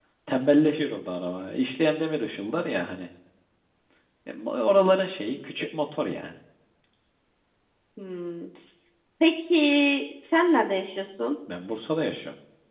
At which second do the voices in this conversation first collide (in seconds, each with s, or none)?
none